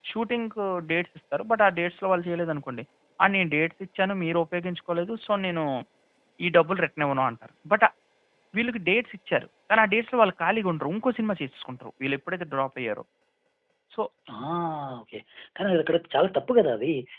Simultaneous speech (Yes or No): No